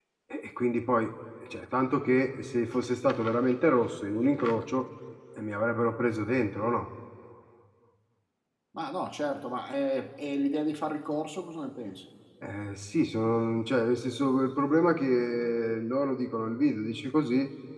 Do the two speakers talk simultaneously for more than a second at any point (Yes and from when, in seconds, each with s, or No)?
No